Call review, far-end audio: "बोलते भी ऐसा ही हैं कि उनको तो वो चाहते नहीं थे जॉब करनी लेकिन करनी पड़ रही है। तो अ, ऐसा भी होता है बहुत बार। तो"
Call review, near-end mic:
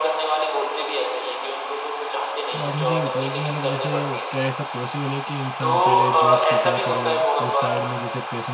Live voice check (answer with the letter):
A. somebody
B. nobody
A